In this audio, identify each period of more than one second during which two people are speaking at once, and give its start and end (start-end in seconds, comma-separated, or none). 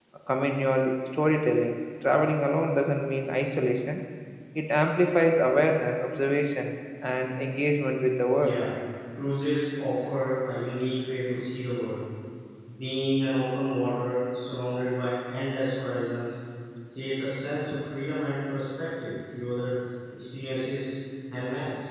none